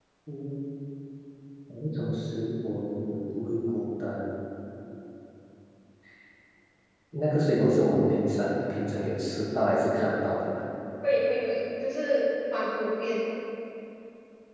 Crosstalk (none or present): none